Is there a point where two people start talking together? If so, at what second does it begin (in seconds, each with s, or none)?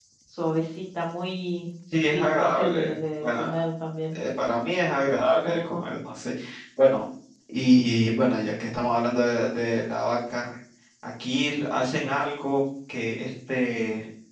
2.1 s